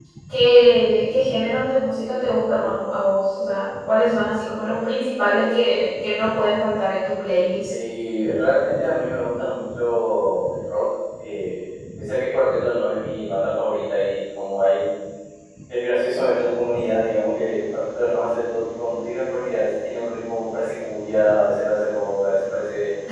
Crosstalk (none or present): none